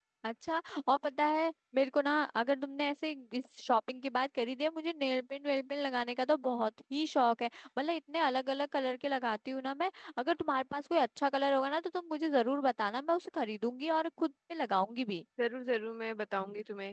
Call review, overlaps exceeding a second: none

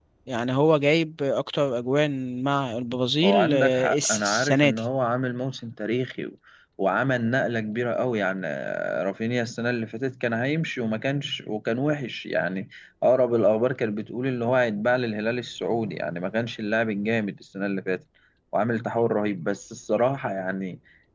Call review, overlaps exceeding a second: present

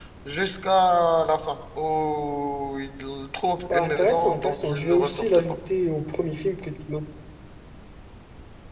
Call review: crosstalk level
present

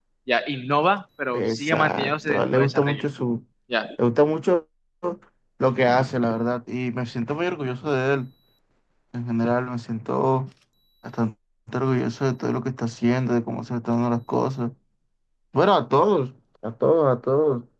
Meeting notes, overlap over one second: present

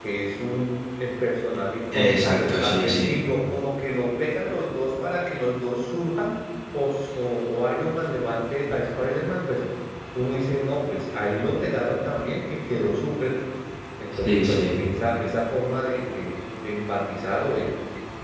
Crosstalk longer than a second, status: present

